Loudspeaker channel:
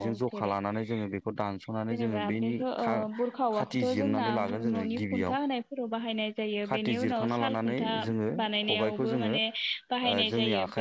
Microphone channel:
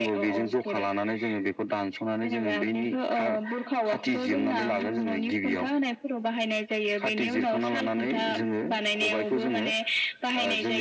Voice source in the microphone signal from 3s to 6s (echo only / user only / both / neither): echo only